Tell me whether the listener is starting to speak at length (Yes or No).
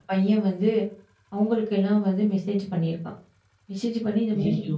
No